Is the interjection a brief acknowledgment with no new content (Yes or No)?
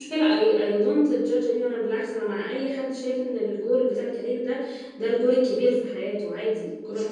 No